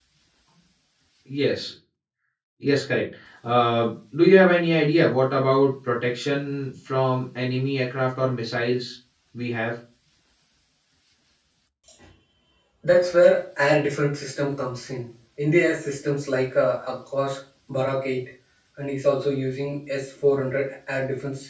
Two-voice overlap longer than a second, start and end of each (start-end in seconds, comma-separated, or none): none